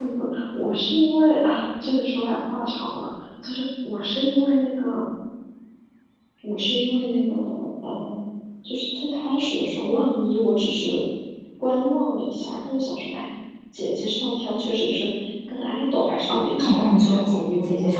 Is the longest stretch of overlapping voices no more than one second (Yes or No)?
No